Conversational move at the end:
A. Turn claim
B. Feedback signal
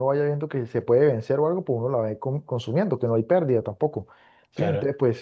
B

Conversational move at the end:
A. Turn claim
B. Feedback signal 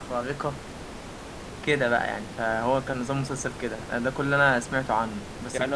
B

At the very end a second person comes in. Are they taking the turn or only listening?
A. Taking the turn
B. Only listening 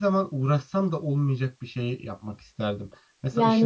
A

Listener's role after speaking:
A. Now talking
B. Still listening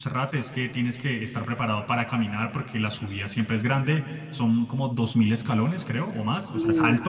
B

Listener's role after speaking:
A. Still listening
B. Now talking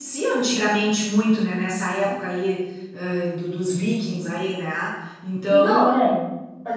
B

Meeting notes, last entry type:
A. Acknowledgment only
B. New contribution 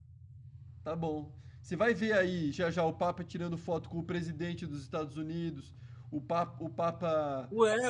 B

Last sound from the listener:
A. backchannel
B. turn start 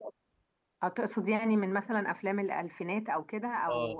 B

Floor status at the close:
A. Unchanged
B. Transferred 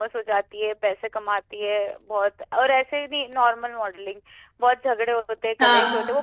A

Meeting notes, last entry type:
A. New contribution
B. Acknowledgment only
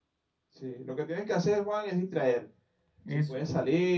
B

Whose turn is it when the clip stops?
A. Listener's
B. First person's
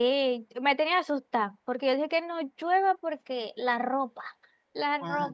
A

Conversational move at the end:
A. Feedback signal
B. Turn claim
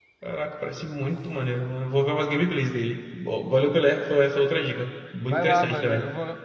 B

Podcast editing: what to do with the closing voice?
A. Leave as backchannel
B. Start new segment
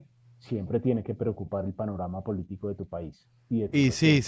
B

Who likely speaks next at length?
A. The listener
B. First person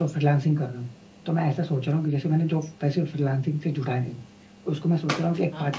B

